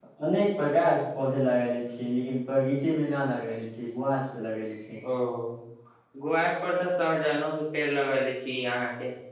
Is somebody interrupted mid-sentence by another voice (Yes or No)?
No